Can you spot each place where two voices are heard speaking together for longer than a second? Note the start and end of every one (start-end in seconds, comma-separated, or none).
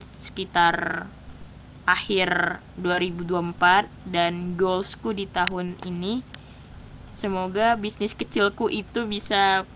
none